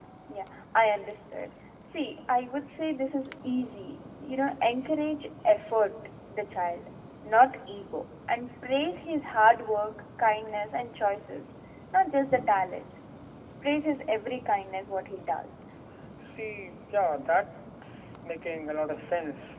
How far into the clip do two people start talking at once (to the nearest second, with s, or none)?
none